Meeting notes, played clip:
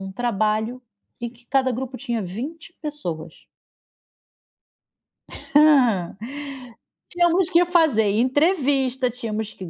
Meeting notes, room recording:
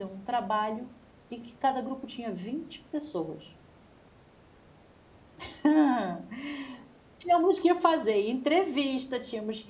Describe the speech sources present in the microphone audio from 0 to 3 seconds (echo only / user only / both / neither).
echo only